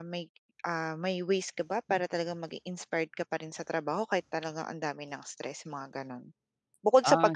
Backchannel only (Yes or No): No